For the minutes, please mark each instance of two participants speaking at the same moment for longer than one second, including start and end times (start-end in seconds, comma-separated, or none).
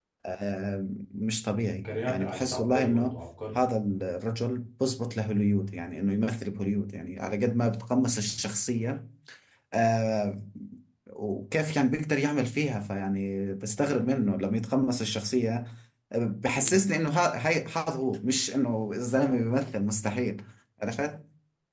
1.9-3.2